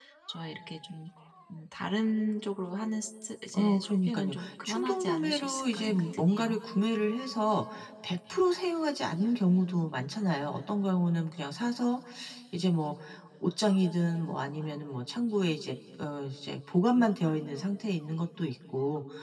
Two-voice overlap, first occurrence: 3.5 s

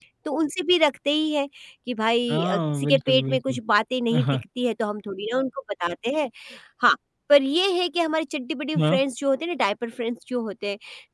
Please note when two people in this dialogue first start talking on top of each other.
2.3 s

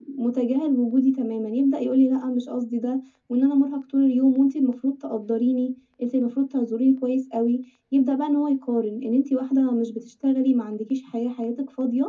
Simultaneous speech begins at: none

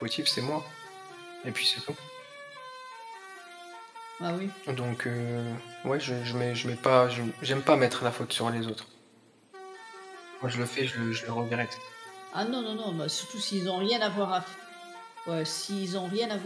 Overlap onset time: none

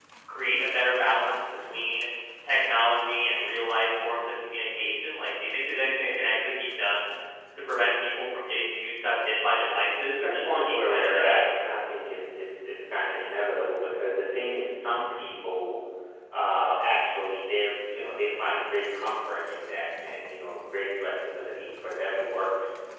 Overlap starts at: 10.2 s

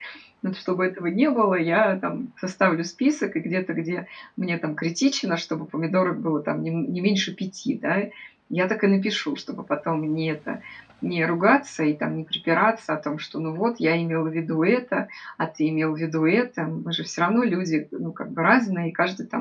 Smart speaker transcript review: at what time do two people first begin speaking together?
none

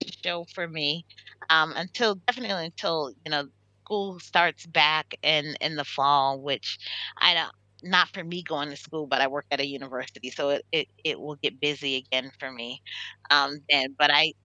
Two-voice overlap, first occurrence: none

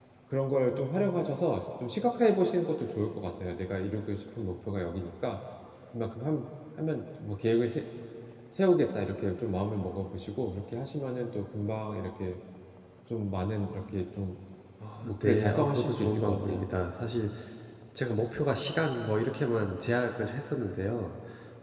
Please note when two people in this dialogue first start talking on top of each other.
15.0 s

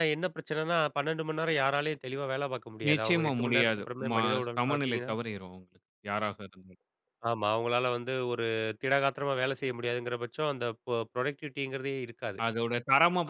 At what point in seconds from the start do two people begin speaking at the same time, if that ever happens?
2.8 s

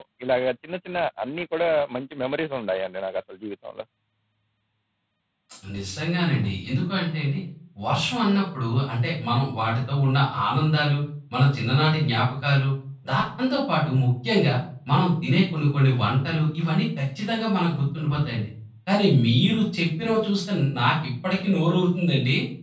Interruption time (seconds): none

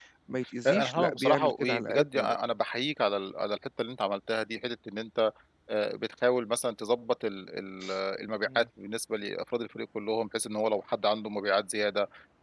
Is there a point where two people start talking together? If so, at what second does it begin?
0.6 s

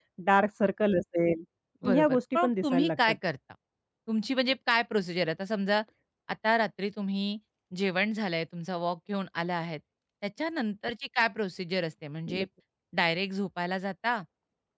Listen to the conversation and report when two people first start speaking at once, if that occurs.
1.9 s

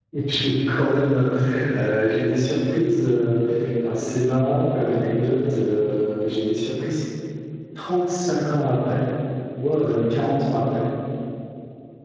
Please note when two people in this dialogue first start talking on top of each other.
none

